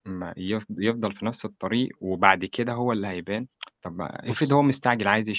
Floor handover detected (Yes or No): No